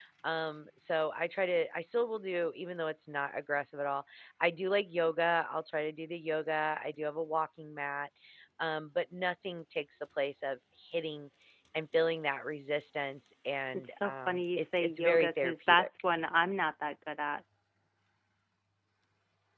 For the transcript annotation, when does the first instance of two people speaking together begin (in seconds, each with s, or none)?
13.7 s